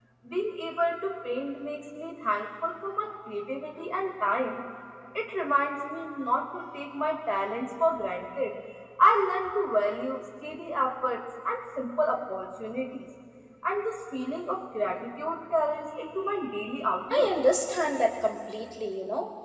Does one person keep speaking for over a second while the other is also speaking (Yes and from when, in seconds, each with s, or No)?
No